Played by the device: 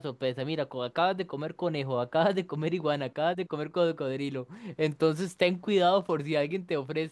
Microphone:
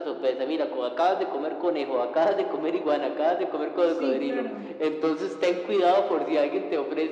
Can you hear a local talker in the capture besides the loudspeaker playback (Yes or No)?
Yes